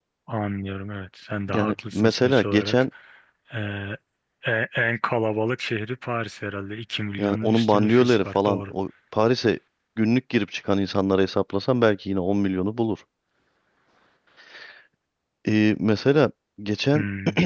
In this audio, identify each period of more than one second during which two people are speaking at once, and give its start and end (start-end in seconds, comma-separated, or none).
1.5-2.8, 7.2-8.7